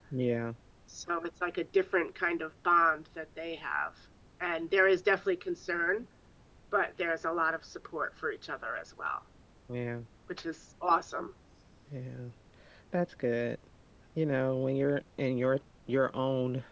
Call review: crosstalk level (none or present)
none